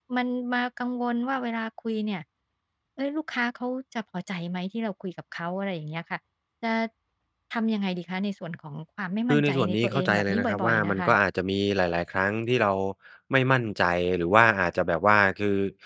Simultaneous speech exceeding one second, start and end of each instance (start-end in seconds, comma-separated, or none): 9.3-11.1